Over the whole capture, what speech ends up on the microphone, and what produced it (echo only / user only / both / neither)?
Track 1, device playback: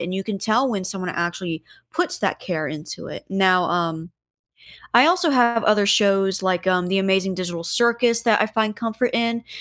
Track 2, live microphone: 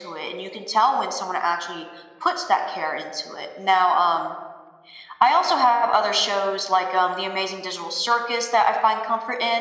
echo only